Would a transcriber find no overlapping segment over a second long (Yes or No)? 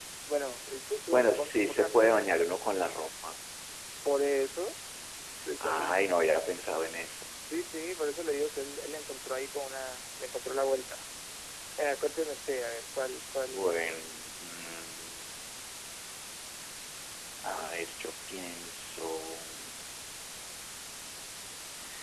No